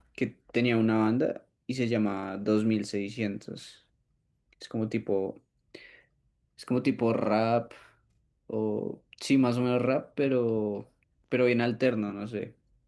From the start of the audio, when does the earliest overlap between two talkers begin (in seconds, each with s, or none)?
none